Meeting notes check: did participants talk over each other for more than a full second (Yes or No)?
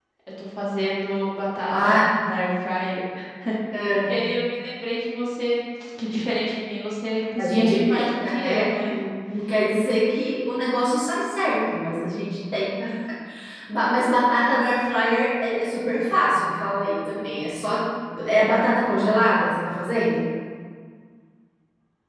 Yes